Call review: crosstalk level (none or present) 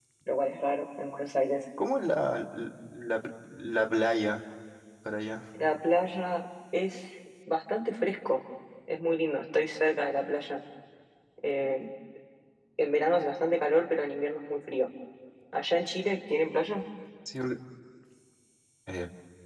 none